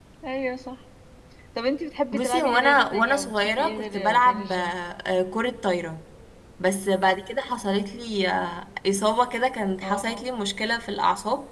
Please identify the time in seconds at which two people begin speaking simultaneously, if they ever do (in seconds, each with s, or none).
2.1 s